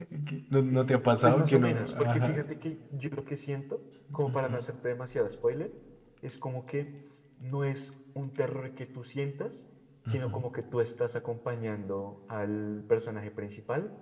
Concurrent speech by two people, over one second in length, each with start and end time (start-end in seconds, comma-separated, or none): 0.7-2.4